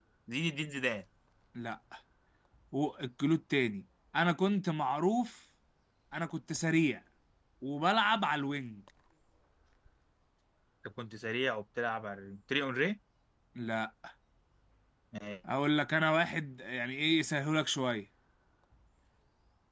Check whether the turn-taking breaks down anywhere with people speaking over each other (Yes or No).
No